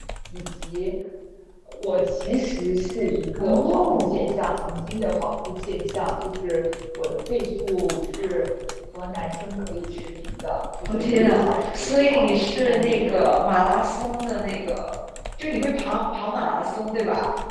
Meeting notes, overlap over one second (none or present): present